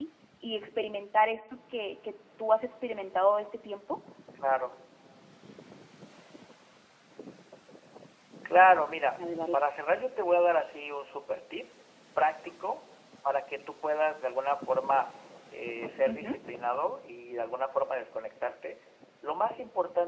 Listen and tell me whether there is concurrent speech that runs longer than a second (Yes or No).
No